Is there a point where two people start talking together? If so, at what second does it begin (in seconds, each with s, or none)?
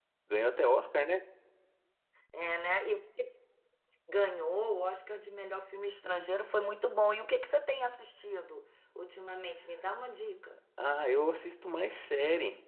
none